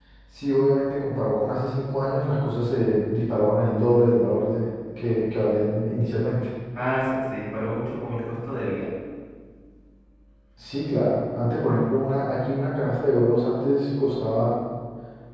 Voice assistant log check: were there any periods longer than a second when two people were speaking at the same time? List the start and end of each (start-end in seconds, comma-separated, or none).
none